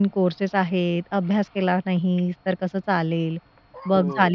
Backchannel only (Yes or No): No